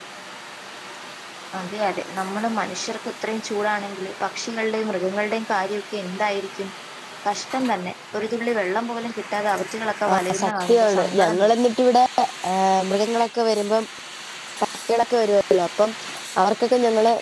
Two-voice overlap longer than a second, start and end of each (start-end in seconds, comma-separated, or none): 10.1-11.5